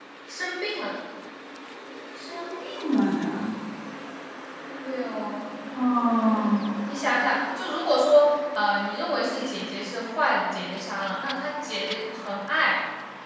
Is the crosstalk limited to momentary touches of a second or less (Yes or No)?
Yes